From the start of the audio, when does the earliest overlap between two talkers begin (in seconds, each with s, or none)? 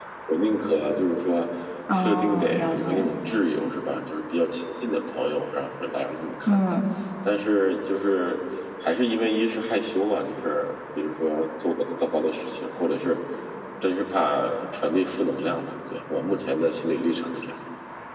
1.9 s